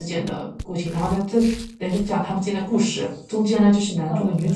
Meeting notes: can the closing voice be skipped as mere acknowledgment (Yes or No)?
Yes